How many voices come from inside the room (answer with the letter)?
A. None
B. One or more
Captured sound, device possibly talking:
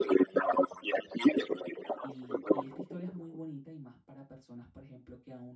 B